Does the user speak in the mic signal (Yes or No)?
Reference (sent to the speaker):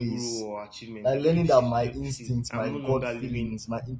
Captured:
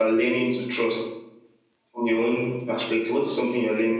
Yes